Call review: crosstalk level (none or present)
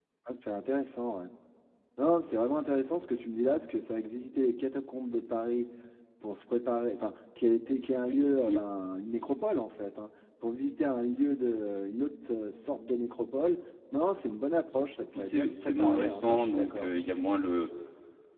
present